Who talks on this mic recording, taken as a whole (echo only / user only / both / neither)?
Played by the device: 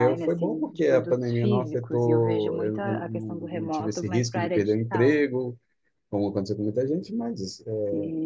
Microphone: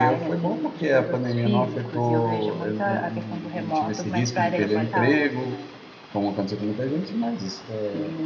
both